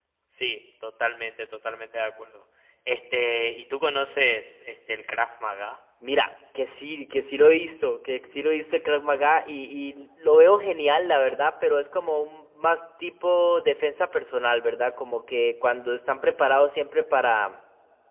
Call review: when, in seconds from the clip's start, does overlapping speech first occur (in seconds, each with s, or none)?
none